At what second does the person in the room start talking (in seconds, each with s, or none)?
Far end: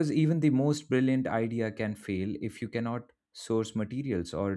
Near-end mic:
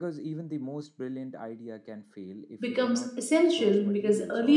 2.7 s